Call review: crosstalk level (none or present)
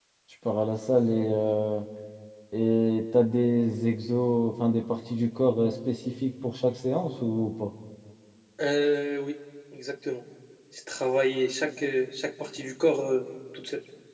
none